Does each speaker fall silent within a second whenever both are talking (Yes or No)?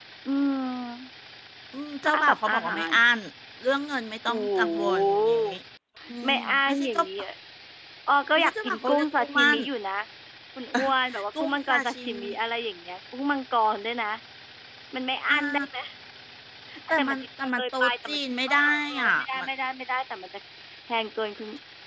No